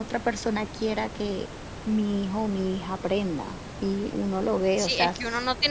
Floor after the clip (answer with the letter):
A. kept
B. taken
B